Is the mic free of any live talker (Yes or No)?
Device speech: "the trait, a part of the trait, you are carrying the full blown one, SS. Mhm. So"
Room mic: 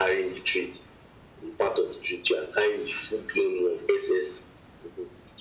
Yes